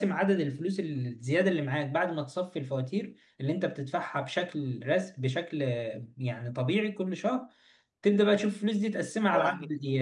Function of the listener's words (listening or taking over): taking over